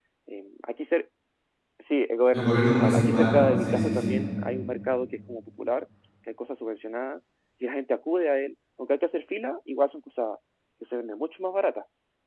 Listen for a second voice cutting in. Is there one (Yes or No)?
Yes